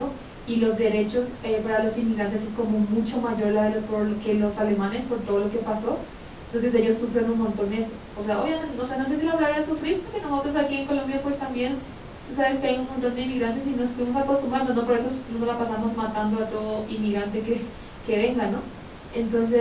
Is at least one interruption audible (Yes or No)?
No